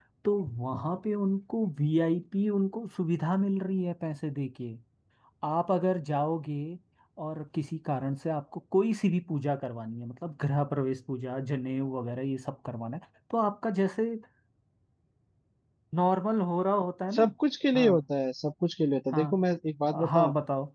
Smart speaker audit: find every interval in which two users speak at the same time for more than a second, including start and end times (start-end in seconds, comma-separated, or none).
none